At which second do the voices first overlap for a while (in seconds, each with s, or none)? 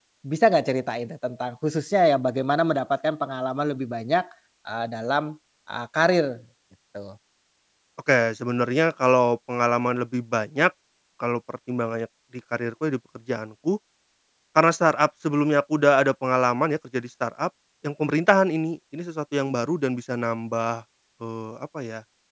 none